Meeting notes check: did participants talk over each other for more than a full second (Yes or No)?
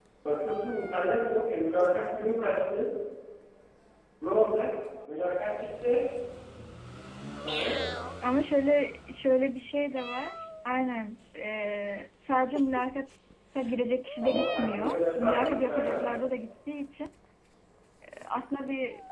Yes